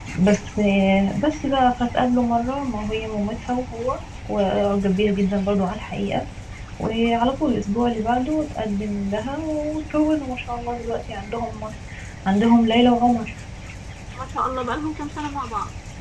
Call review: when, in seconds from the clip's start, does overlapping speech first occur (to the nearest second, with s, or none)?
none